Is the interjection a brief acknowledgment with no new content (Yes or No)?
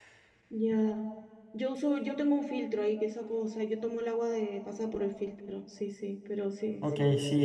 No